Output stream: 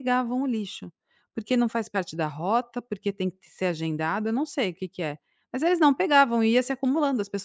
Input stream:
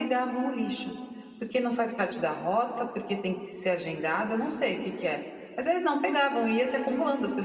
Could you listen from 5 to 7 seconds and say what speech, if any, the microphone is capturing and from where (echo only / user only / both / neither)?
echo only